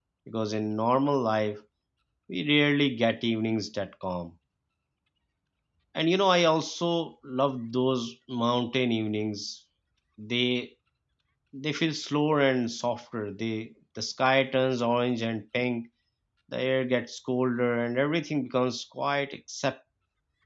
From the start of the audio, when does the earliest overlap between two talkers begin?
none

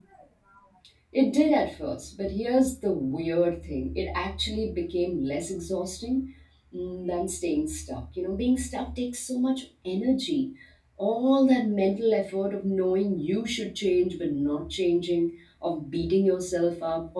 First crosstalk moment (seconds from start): none

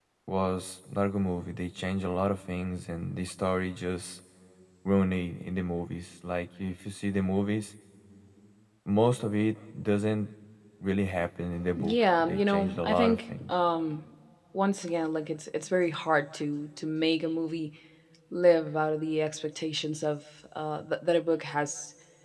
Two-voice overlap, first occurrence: 11.8 s

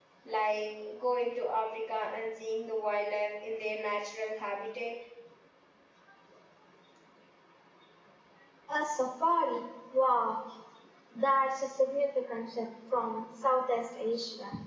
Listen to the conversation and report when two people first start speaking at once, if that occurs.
none

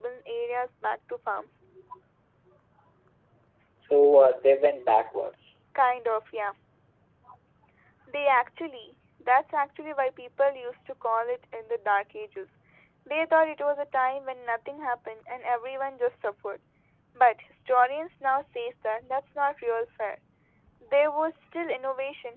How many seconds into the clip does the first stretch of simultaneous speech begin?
none

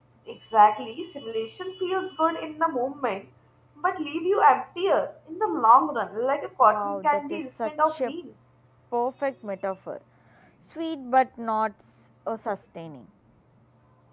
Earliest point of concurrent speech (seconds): 6.6 s

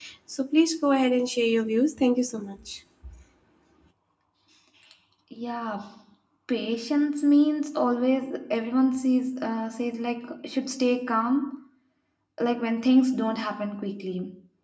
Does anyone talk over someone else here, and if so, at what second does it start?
none

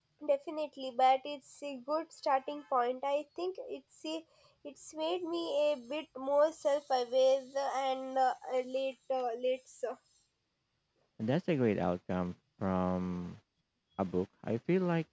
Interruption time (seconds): none

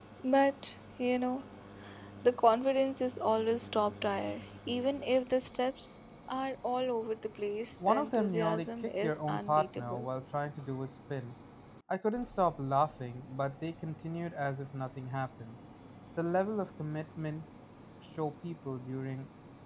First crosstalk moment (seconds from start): 7.8 s

